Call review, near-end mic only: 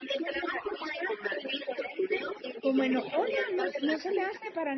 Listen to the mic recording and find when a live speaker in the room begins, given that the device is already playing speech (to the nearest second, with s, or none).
3 s